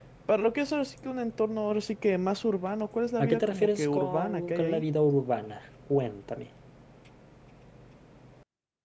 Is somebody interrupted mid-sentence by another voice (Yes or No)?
Yes